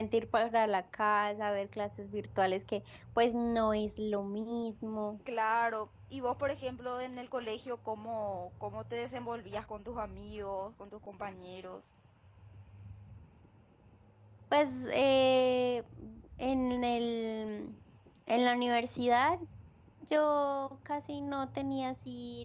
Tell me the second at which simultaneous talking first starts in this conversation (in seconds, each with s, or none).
none